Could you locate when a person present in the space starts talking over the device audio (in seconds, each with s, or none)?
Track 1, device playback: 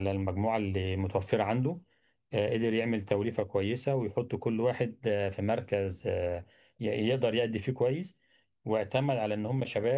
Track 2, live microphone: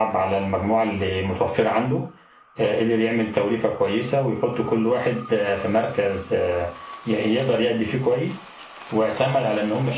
none